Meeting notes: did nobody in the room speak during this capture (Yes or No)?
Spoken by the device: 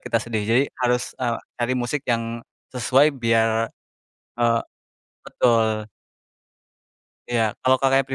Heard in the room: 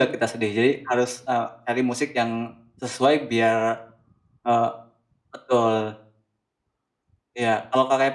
Yes